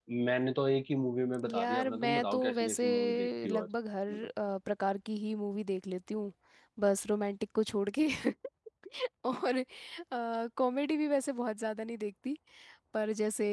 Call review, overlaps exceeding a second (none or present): present